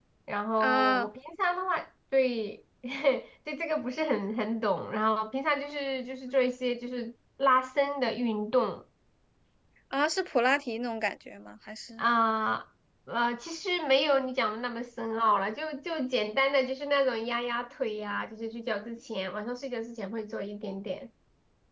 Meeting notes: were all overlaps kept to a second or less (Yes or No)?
Yes